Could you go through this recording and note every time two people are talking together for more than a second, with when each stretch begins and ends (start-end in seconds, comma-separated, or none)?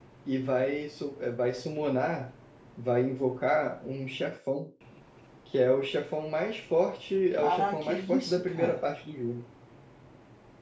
7.4-8.8